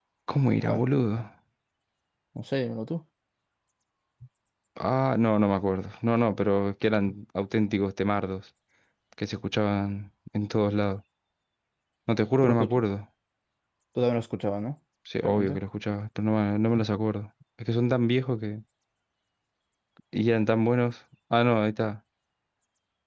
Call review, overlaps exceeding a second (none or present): none